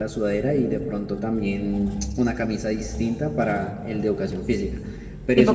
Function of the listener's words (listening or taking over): taking over